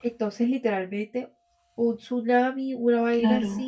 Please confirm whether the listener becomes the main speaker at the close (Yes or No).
Yes